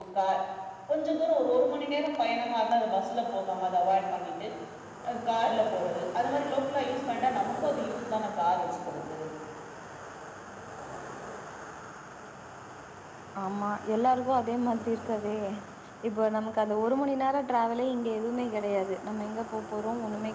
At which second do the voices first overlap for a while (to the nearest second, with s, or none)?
none